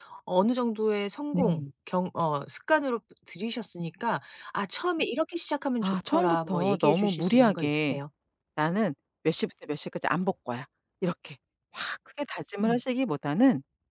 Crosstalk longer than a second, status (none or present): present